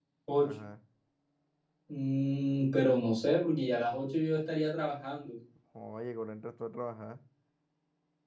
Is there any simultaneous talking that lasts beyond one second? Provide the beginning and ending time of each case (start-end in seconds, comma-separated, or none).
none